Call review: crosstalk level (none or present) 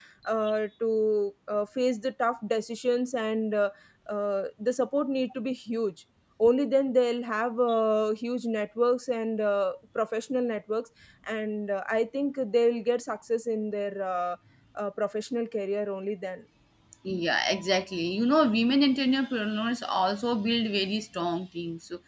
none